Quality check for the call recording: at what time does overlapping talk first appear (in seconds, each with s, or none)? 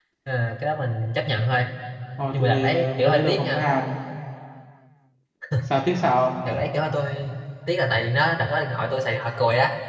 2.3 s